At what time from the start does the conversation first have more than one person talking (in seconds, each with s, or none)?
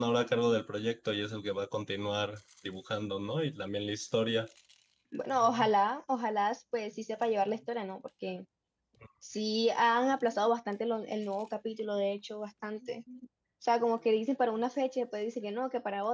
none